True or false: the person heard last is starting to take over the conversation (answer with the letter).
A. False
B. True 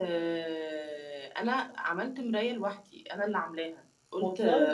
A